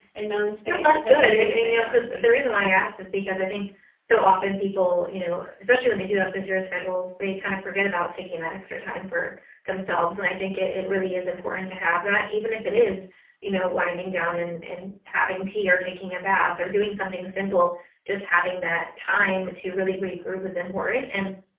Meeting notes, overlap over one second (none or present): present